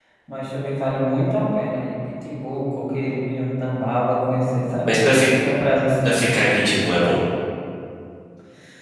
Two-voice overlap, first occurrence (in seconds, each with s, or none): none